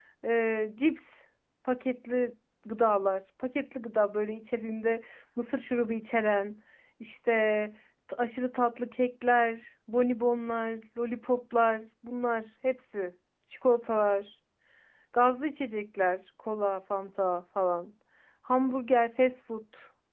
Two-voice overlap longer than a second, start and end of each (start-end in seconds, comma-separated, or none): none